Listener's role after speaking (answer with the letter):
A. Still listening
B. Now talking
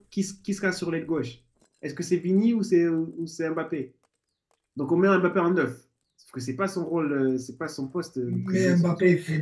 B